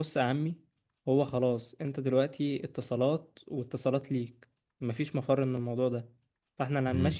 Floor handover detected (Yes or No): No